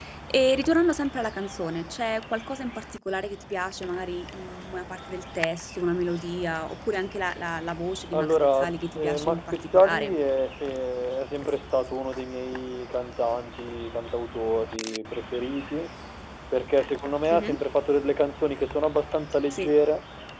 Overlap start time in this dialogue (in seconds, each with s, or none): 8.1 s